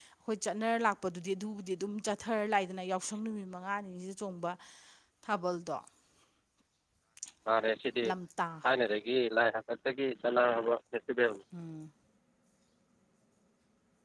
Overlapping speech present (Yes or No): No